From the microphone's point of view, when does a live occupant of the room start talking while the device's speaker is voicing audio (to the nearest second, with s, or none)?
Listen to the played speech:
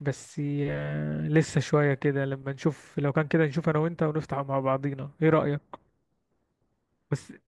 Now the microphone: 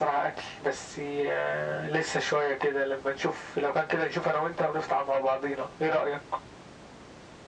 none